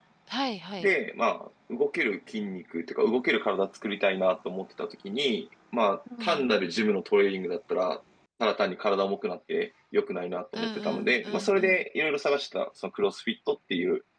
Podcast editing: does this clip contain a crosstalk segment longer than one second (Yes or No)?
Yes